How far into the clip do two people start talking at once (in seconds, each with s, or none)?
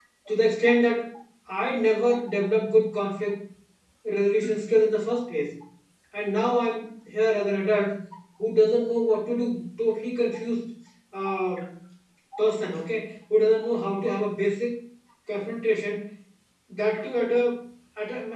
none